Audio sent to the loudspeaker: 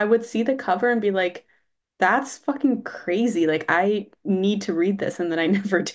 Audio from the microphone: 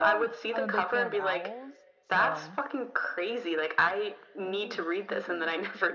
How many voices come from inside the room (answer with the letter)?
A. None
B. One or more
B